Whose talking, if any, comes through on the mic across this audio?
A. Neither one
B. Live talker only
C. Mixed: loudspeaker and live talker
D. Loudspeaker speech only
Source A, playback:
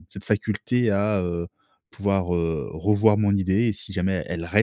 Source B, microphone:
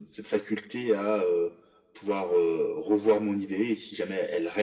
D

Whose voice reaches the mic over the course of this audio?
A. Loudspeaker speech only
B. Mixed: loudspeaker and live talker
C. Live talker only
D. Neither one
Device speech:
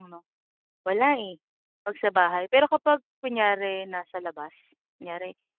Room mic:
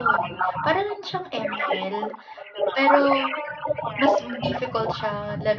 B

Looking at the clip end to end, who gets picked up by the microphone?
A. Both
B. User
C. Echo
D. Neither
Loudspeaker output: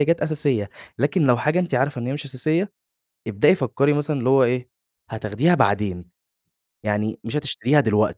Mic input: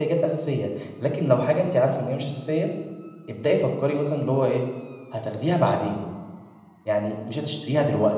C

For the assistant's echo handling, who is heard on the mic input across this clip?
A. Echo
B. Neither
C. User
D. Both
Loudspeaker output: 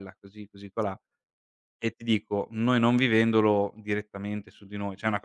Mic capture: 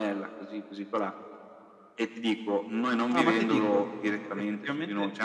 D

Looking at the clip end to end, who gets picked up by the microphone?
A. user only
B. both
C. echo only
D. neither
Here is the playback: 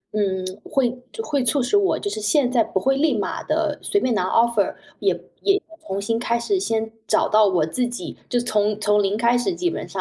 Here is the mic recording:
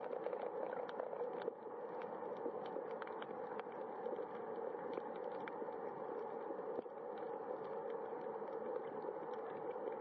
D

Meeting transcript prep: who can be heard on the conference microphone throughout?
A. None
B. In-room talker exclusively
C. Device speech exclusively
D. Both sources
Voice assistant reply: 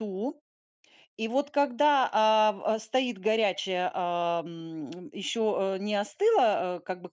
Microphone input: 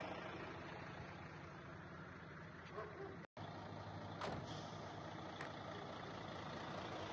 A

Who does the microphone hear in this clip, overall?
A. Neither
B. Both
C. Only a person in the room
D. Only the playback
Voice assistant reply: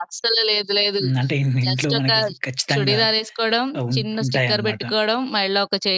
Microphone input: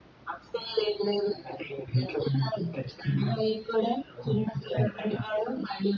D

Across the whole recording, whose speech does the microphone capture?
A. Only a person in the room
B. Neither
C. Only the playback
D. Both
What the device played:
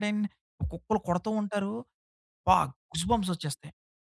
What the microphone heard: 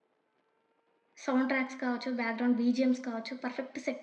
A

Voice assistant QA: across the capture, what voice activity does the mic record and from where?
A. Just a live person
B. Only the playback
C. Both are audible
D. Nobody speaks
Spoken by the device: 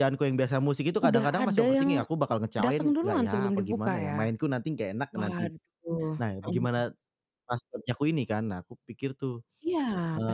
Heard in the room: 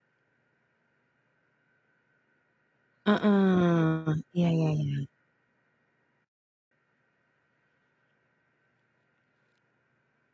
A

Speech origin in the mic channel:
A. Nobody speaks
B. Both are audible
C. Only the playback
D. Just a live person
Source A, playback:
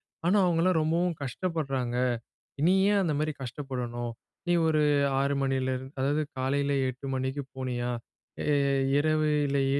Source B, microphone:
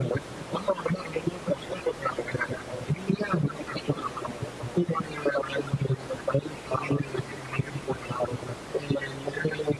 C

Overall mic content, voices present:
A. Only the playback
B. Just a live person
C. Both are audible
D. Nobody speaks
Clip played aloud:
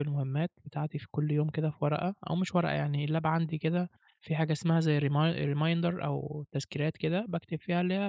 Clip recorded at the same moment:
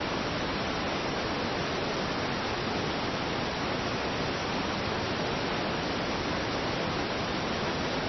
D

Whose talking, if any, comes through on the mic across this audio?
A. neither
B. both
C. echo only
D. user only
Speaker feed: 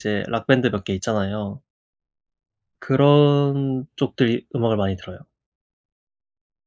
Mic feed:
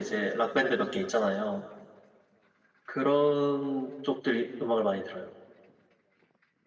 C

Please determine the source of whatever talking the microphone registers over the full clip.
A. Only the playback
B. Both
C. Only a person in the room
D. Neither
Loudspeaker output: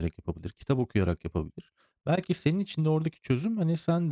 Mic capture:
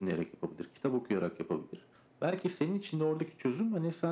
A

